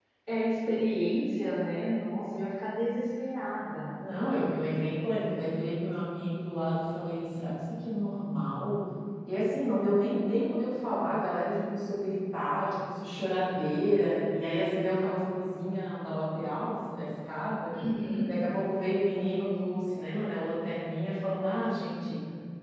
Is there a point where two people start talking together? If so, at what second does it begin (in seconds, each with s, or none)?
none